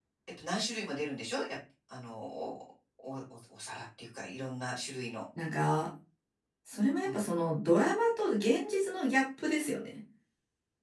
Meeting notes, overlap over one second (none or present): none